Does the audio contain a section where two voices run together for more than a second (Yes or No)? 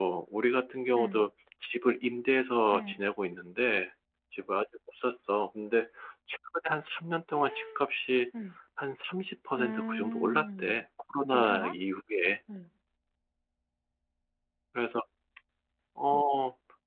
Yes